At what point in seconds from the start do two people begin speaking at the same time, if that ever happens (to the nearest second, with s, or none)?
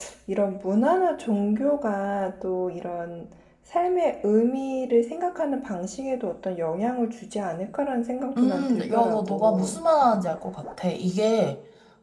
8 s